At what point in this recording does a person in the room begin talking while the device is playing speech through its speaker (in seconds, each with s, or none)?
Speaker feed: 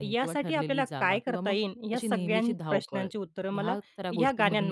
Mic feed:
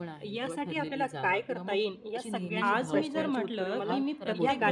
2.6 s